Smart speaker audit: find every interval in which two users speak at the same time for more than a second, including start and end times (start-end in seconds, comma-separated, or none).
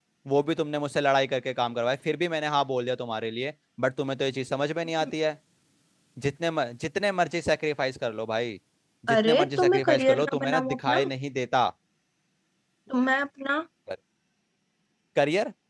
9.1-11.0